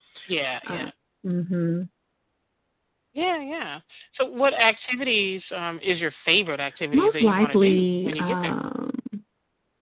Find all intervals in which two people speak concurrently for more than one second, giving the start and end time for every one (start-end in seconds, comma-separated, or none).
6.9-8.5